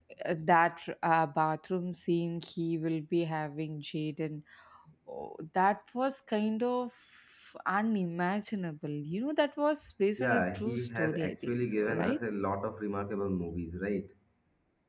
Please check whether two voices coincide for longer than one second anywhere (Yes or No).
Yes